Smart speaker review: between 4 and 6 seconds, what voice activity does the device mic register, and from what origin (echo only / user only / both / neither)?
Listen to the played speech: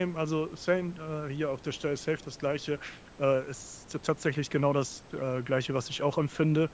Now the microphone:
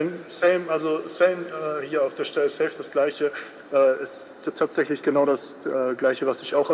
echo only